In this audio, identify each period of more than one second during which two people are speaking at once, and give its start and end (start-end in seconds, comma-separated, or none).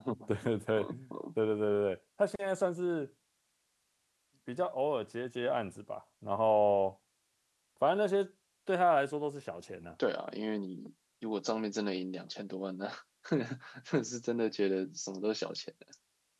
none